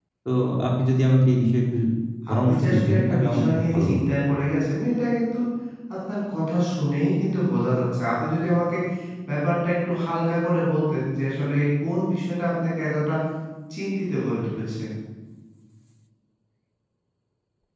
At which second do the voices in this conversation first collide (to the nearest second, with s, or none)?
2 s